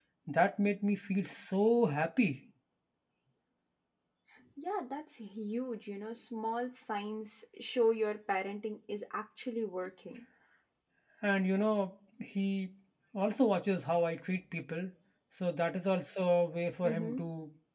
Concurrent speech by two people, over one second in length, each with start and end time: none

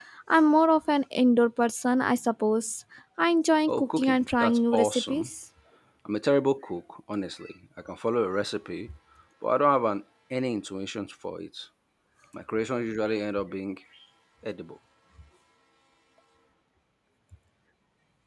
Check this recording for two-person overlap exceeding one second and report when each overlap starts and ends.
3.7-5.3

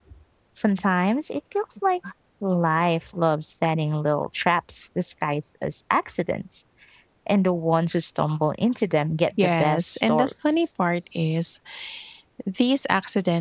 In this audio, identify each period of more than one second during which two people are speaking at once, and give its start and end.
9.4-10.7

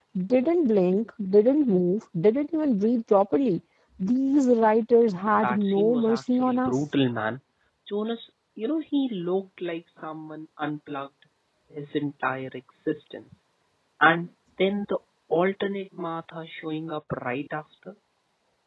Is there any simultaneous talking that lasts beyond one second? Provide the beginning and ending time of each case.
5.4-6.8

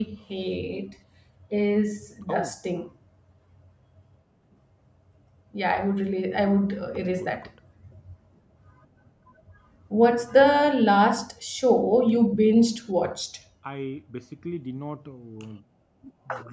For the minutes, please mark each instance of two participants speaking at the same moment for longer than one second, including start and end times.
none

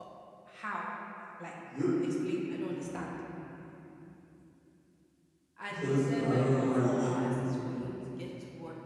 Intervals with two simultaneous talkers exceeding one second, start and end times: 5.7-7.2

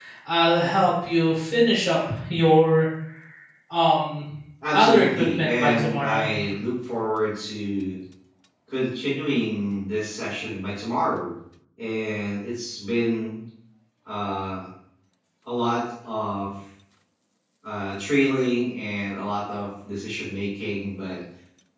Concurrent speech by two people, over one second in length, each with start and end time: 4.7-6.3

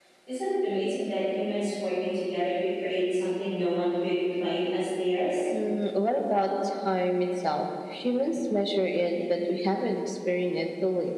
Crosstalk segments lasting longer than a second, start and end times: none

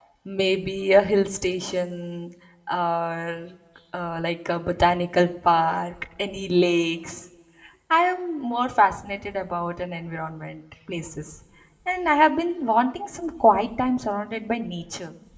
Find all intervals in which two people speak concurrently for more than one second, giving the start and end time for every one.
none

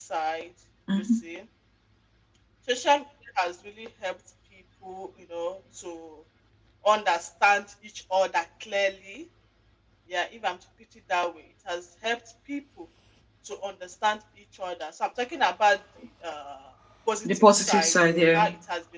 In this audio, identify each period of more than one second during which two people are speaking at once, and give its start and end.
17.2-18.5

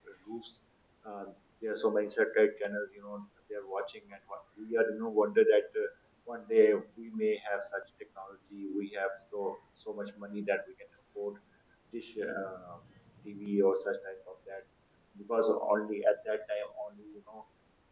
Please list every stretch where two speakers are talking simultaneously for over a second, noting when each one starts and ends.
none

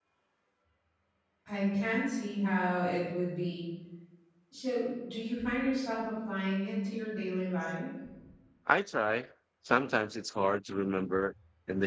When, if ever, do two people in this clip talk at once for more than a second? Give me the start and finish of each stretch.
none

